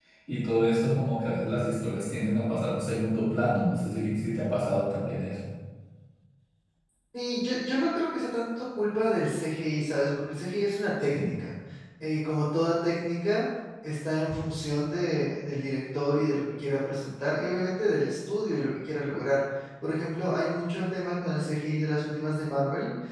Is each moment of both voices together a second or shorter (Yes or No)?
Yes